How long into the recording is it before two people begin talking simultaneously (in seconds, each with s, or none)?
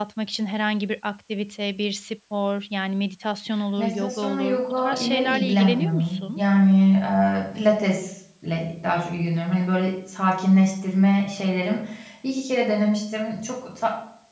3.8 s